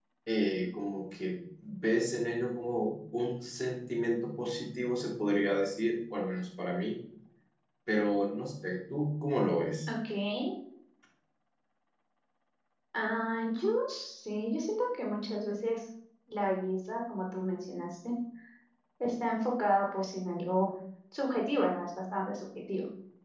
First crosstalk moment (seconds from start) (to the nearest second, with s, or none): none